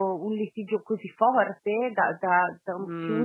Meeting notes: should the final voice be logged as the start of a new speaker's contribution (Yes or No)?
Yes